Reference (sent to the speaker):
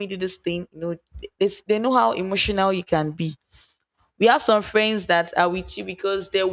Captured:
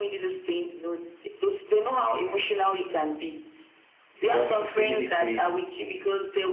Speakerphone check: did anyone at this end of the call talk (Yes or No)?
Yes